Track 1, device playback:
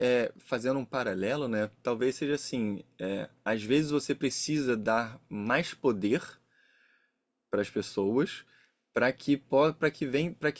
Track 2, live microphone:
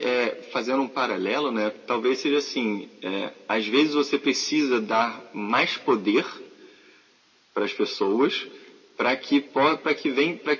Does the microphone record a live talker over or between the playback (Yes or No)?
No